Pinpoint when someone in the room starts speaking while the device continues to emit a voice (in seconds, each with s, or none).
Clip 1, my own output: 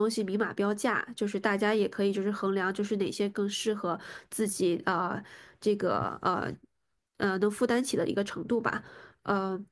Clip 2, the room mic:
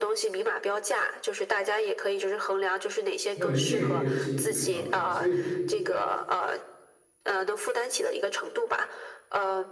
3.3 s